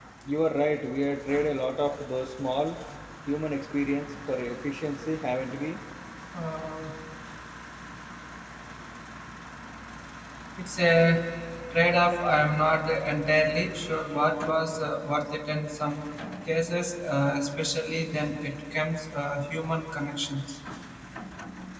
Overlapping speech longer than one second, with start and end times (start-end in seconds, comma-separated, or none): none